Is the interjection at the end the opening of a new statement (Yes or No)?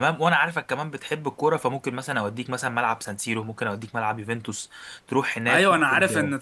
Yes